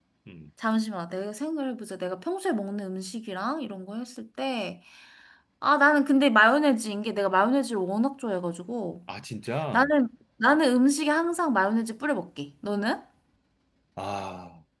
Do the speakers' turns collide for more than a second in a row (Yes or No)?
No